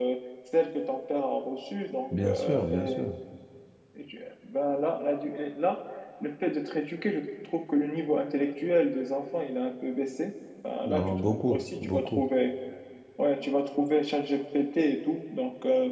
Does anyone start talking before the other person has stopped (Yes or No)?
Yes